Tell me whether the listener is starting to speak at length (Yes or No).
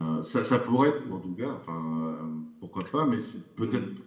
No